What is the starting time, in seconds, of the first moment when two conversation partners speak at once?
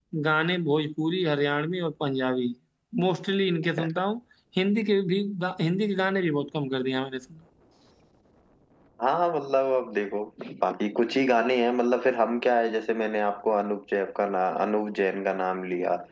none

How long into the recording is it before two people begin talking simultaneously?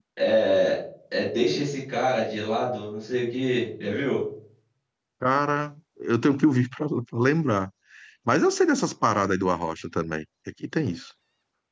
none

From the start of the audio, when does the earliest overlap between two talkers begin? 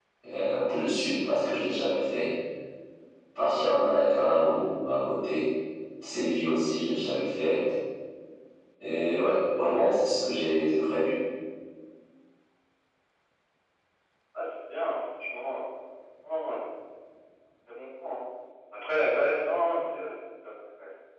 none

